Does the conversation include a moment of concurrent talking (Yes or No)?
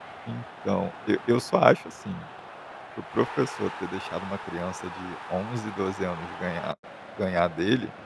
No